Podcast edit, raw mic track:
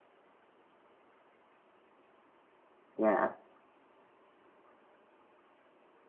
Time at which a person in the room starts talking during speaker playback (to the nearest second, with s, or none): 3 s